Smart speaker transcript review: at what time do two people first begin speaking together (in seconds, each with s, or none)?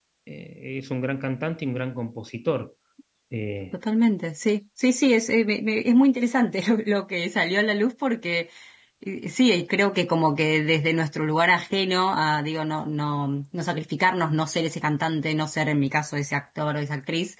none